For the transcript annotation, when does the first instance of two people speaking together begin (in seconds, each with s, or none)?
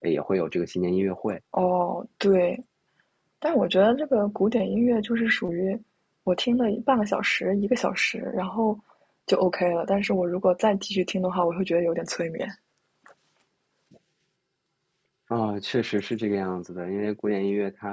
none